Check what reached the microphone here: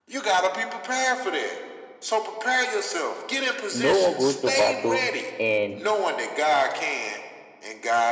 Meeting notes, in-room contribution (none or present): present